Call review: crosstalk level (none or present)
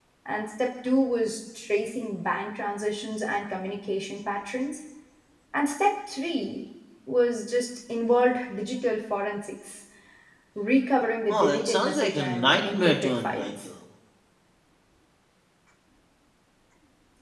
present